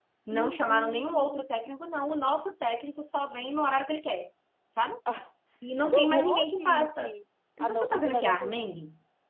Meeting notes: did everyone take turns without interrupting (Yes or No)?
No